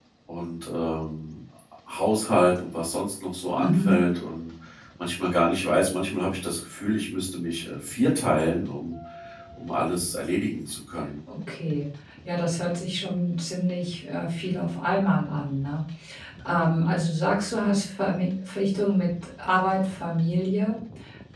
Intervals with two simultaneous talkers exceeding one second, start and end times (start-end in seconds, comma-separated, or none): none